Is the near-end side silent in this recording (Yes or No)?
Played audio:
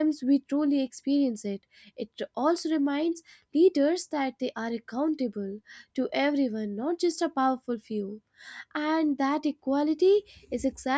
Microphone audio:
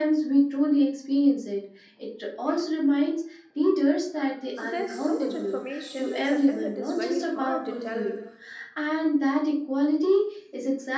No